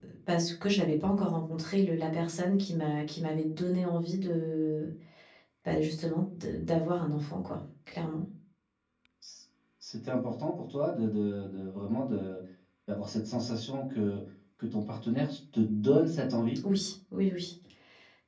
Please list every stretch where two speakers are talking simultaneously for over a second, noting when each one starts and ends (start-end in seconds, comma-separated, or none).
none